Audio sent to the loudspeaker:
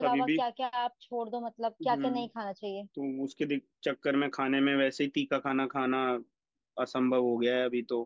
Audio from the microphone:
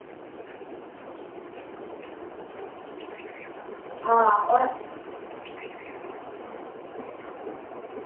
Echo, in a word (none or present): none